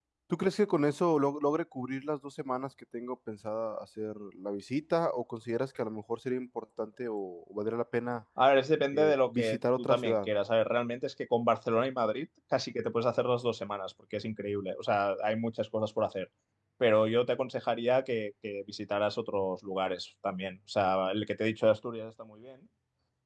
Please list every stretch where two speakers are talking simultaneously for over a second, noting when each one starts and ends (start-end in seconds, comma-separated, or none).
8.9-10.3